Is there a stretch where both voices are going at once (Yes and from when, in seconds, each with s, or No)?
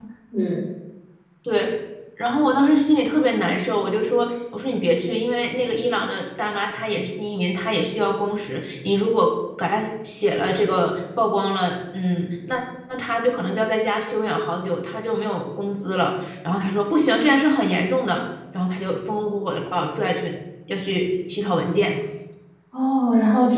No